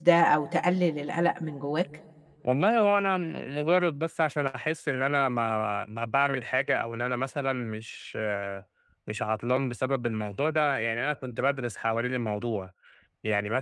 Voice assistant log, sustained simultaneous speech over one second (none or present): none